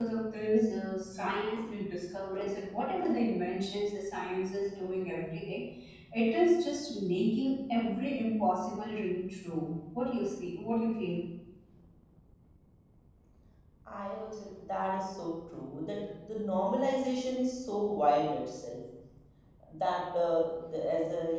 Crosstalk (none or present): none